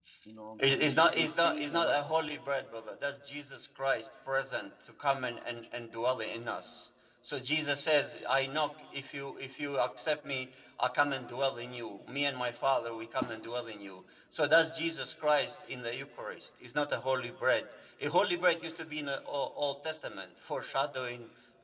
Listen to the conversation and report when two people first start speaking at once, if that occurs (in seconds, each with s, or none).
0.7 s